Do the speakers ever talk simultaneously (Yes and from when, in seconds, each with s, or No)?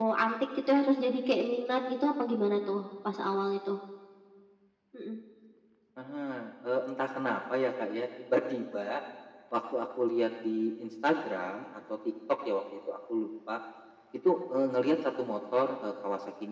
No